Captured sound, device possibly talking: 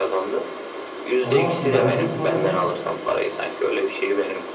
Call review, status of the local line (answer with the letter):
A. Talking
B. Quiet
A